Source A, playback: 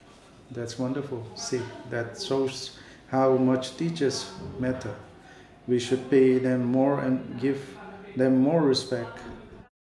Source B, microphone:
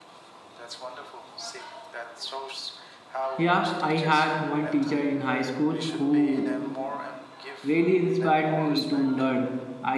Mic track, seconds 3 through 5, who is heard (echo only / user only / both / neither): both